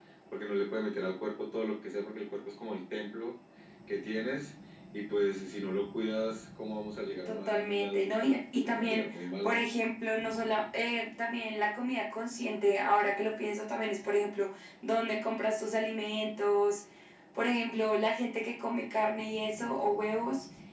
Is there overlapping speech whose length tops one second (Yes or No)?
Yes